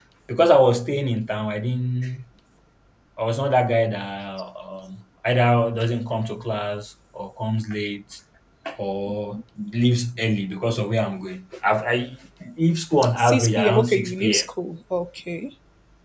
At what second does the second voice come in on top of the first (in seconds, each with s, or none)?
13.2 s